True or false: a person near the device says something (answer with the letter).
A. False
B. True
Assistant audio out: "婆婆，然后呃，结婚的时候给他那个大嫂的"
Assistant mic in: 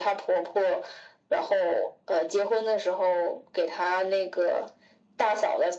A